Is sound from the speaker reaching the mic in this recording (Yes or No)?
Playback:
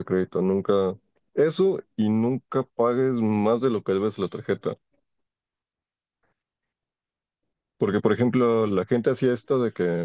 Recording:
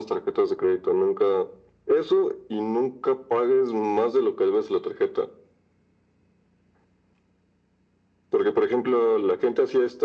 Yes